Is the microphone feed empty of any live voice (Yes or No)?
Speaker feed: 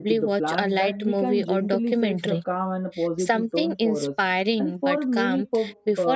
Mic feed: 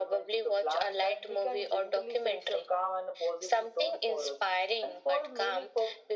Yes